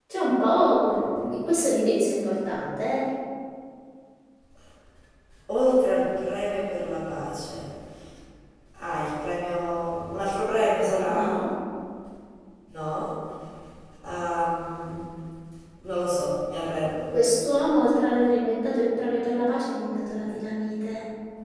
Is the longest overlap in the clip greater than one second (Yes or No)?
No